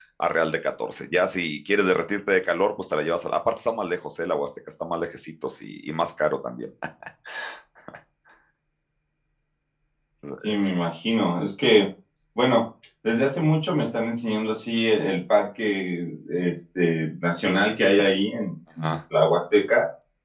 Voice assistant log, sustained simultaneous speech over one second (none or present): none